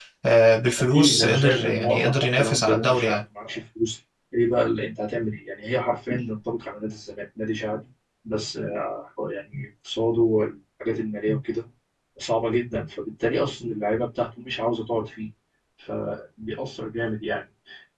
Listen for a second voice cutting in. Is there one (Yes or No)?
Yes